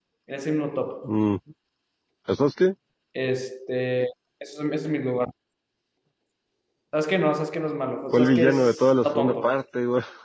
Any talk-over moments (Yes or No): Yes